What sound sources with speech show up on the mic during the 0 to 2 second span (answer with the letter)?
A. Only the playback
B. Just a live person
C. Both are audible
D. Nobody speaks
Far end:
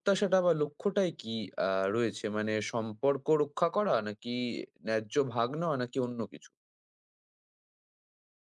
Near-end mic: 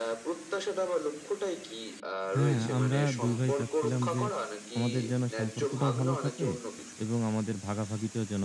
A